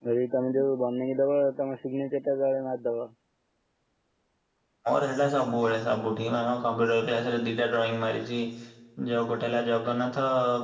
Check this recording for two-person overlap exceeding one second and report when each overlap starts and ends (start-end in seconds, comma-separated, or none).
none